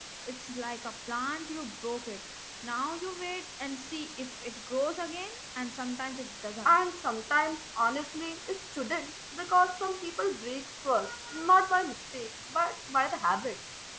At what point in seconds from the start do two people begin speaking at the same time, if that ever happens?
none

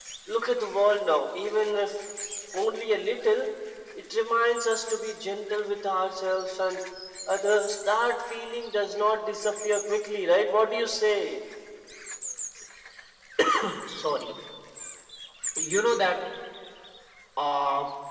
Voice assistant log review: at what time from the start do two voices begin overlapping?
none

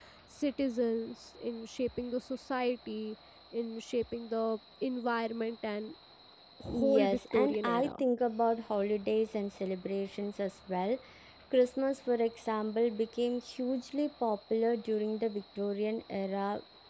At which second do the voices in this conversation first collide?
6.7 s

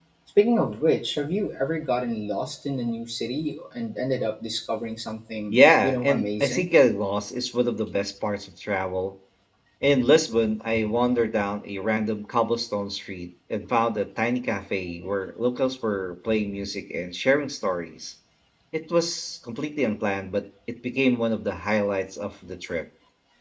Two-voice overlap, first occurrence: 5.5 s

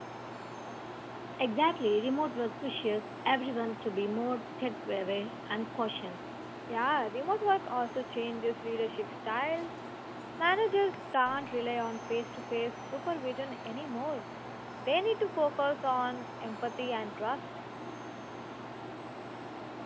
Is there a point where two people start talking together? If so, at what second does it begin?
none

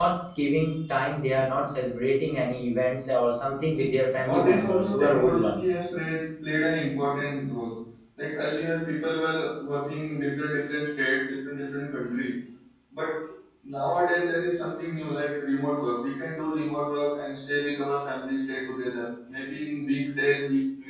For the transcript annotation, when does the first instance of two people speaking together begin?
4.1 s

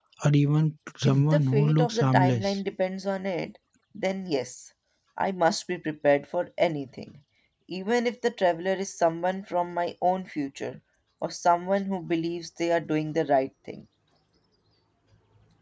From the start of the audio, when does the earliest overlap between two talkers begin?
1.1 s

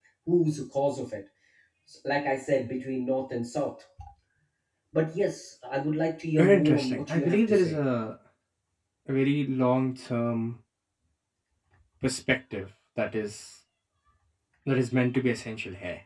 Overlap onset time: 6.4 s

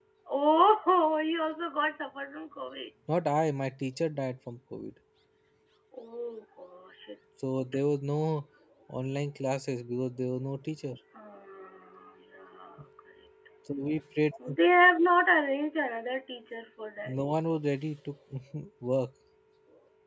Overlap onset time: none

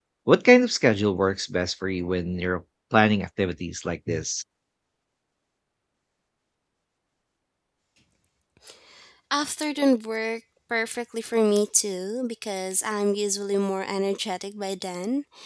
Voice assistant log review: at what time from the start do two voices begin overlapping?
none

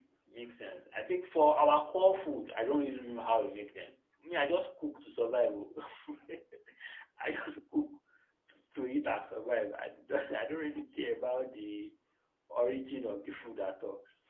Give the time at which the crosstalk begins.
none

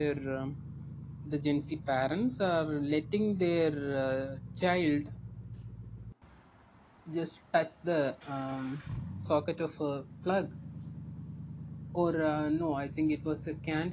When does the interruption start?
none

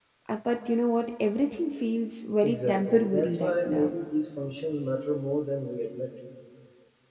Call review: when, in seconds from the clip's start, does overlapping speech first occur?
2.4 s

